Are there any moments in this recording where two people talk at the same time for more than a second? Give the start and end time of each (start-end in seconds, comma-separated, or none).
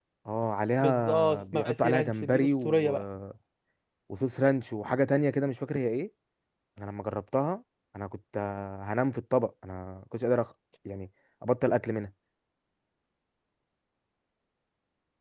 0.8-2.9